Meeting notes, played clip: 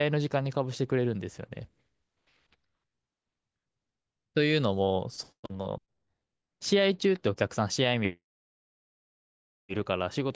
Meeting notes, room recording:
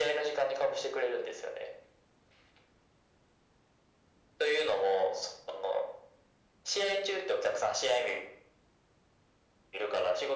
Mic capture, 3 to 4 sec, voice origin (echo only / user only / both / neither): neither